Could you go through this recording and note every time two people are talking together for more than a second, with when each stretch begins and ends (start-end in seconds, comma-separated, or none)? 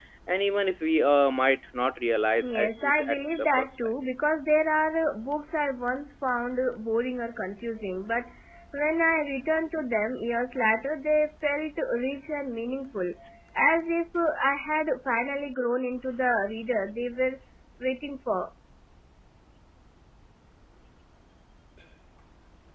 2.4-3.7